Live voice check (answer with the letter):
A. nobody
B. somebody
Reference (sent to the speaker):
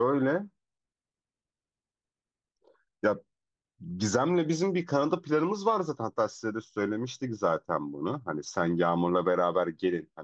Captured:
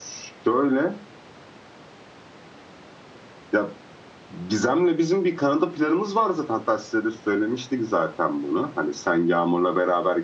A